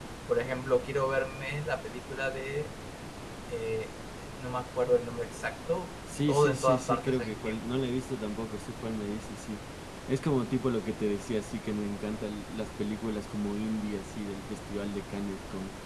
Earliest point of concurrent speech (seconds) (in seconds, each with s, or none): 6.3 s